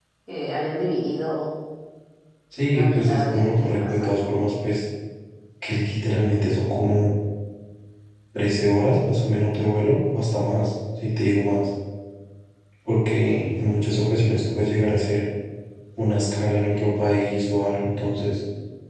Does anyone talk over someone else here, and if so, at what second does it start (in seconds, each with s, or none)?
2.7 s